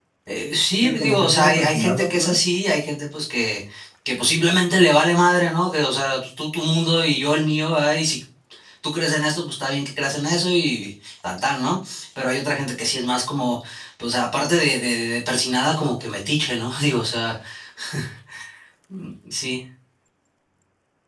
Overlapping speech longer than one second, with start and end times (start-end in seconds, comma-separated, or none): 0.8-2.4